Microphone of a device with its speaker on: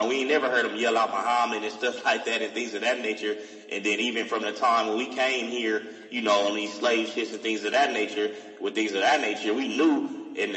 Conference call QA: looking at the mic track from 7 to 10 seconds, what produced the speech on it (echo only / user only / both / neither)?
echo only